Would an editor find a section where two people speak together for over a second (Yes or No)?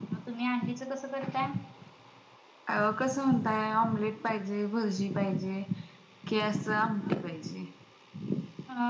No